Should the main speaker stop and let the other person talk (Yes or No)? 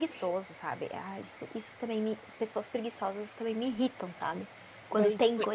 Yes